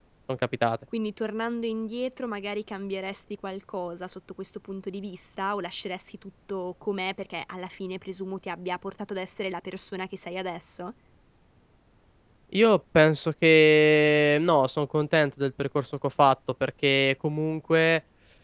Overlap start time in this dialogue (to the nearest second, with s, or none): none